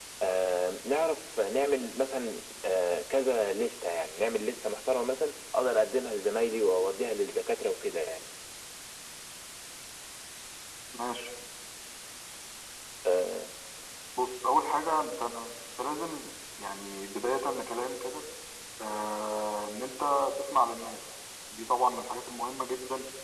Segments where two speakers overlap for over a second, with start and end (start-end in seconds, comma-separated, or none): none